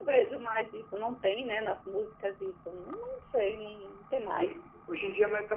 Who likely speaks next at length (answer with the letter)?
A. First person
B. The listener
B